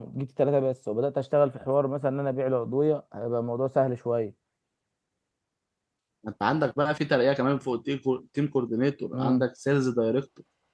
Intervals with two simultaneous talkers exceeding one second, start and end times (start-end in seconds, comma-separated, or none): none